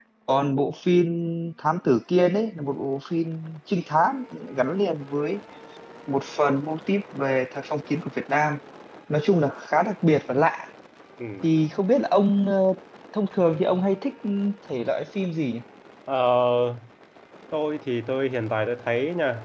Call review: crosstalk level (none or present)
none